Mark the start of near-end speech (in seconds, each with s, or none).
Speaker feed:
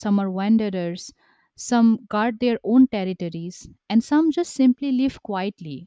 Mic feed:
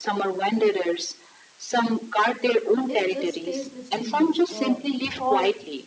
2.9 s